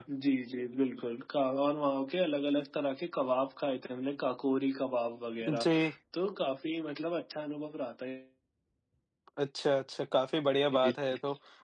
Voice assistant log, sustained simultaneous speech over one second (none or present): none